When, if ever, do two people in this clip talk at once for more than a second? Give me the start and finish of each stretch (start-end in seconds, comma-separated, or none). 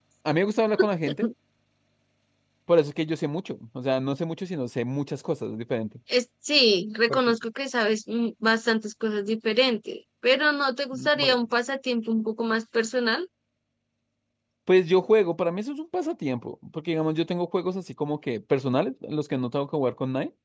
none